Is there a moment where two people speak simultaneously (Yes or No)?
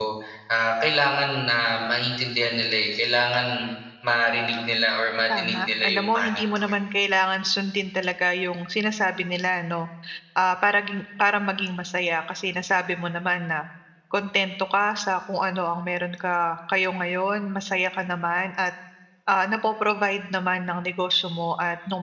Yes